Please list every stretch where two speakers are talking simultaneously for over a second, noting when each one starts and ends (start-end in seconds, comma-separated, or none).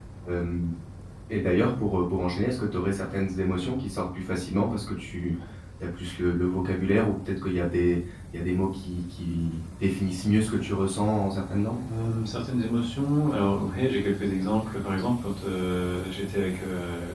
none